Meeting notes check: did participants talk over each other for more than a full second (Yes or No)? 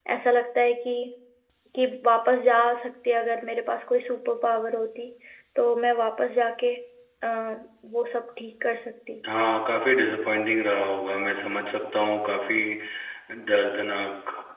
No